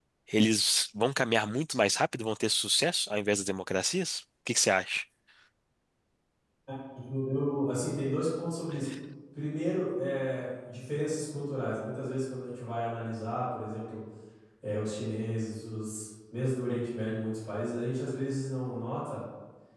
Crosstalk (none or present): none